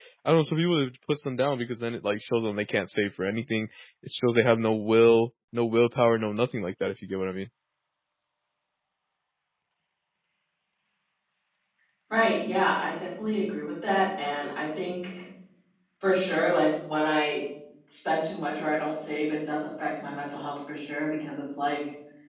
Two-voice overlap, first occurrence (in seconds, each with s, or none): none